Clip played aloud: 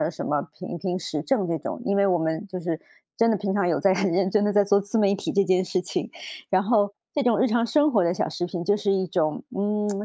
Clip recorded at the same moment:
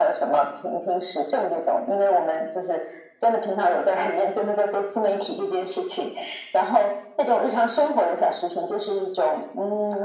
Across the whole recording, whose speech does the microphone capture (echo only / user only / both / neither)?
echo only